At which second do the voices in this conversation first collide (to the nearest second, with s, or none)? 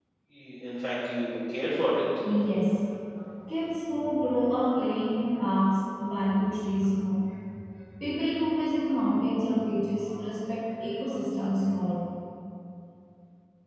none